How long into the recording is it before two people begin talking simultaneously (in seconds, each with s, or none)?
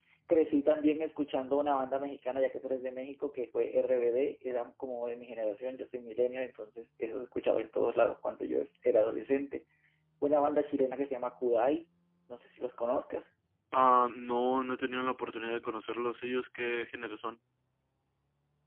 none